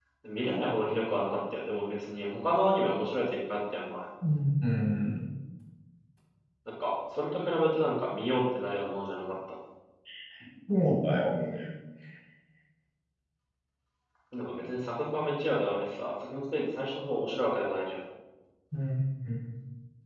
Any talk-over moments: No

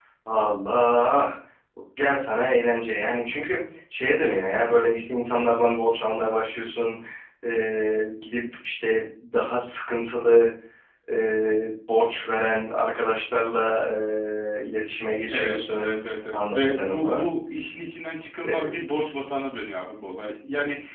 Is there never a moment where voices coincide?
No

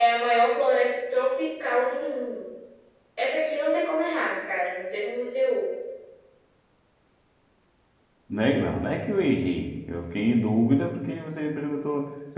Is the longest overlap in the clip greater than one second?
No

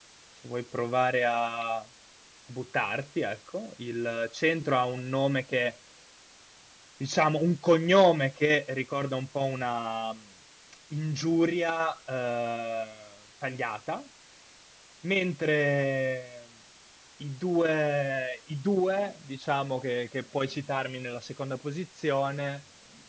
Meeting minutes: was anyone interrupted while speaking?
No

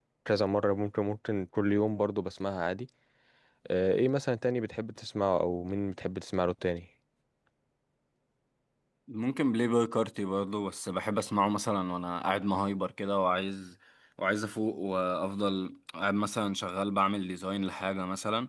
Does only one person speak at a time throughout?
Yes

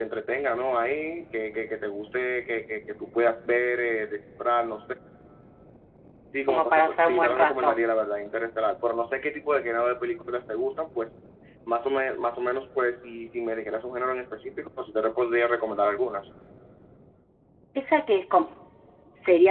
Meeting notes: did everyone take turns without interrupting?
No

